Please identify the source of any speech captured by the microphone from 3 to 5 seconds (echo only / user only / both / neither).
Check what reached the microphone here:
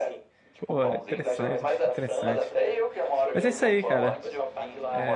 both